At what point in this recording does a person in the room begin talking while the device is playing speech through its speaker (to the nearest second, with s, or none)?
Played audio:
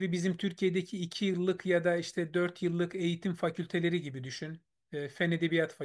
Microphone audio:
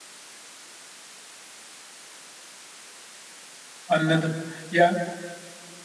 4 s